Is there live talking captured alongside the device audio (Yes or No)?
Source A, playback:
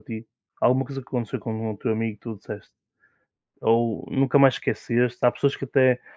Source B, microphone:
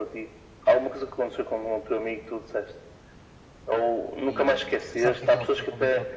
Yes